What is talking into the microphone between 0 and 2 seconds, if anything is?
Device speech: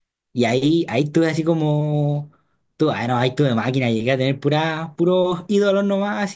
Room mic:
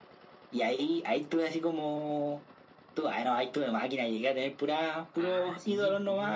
echo only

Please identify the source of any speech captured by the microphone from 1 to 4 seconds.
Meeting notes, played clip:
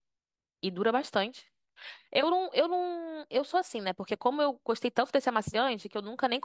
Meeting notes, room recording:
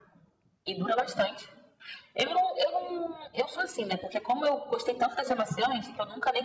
echo only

